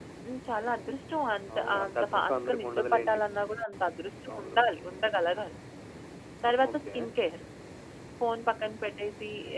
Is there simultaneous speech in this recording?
Yes, from 1.5 s

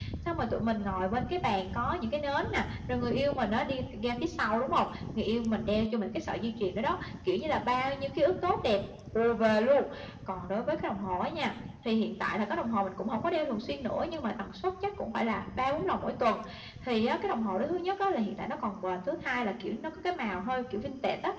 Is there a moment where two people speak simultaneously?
No

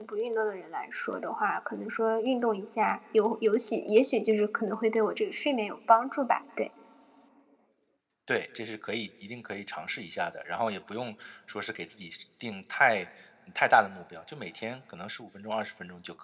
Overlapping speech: No

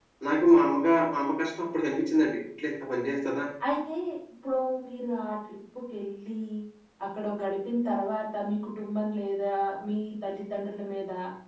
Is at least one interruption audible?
No

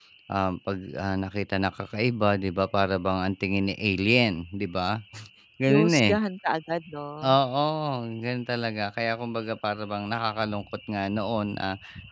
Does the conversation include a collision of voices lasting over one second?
No

